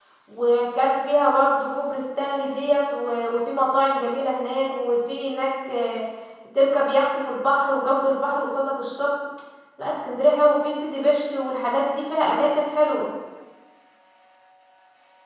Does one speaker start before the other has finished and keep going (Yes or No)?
No